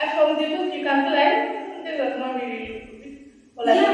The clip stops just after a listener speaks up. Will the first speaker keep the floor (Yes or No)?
No